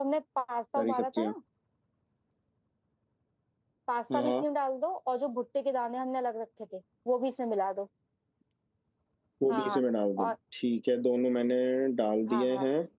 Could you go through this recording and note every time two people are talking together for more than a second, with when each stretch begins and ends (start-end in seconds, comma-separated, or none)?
none